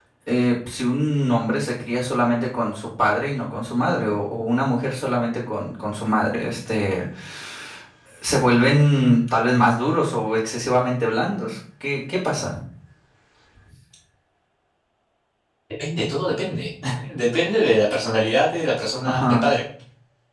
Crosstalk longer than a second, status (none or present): none